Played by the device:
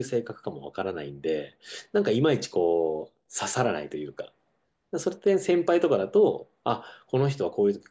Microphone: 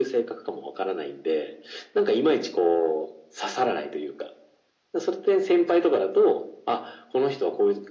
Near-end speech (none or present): none